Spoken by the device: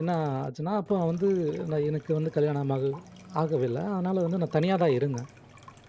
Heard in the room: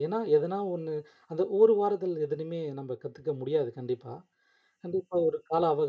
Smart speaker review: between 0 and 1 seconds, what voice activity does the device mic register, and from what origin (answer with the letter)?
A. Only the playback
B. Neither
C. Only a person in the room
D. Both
C